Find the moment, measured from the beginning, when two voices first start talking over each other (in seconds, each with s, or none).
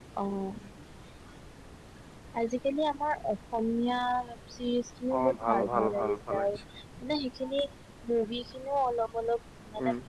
5.2 s